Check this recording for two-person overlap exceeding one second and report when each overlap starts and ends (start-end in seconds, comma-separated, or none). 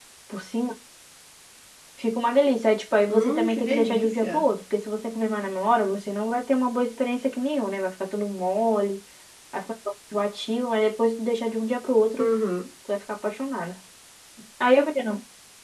3.1-4.5